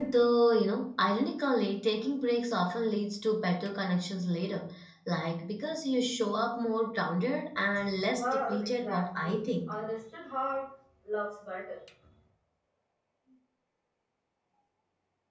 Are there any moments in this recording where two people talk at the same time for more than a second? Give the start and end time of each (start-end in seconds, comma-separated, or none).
8.2-9.7